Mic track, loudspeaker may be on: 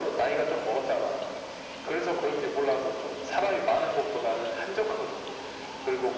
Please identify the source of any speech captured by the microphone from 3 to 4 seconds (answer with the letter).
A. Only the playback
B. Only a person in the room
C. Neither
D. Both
A